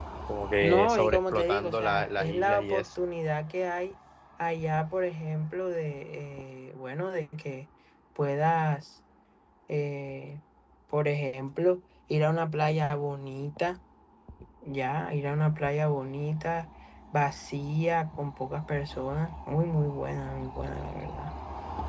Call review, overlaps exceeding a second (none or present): present